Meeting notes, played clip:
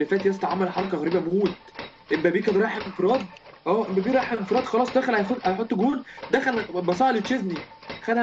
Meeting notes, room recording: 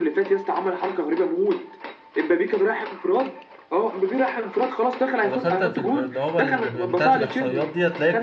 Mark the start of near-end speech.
5.2 s

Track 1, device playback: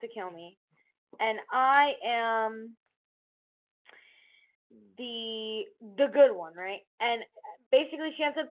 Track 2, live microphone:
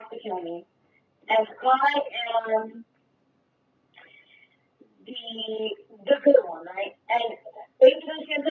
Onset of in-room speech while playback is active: none

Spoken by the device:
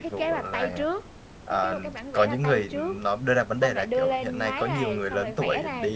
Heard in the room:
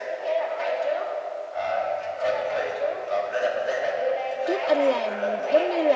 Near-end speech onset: 4.4 s

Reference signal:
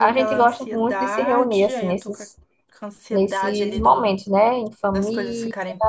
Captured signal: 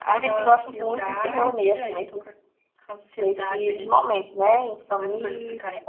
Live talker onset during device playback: none

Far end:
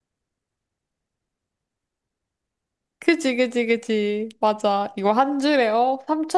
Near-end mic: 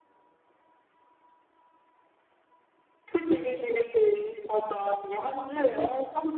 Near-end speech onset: none

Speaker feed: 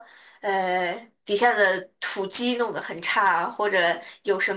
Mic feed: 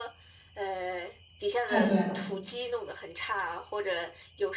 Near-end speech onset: 1.6 s

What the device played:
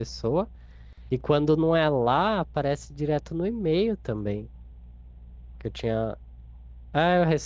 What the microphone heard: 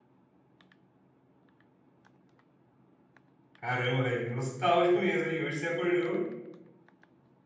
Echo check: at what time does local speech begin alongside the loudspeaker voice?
3.5 s

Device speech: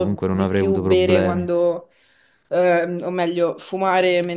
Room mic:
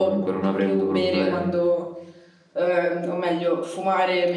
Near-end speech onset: none

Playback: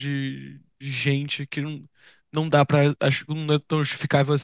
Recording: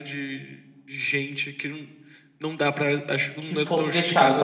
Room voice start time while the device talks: 3.4 s

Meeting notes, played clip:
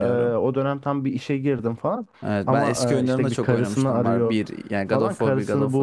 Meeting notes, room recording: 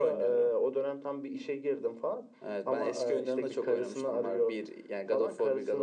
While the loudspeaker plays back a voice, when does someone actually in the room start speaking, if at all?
none

